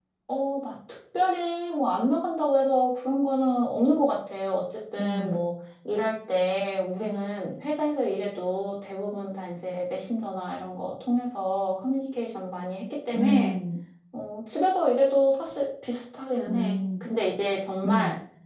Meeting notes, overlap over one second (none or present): none